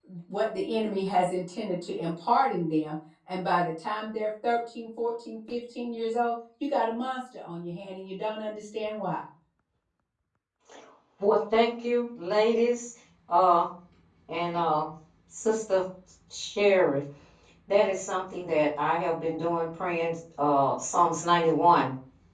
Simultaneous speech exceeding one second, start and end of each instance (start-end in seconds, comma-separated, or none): none